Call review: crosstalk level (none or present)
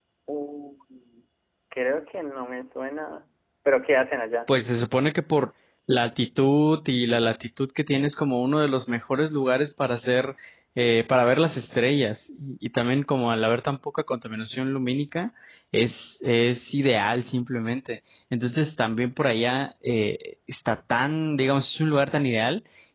none